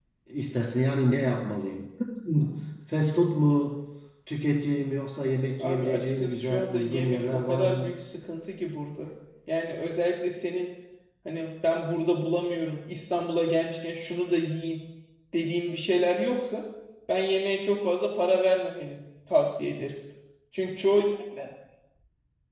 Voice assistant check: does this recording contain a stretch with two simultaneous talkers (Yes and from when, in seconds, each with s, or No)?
Yes, from 5.6 s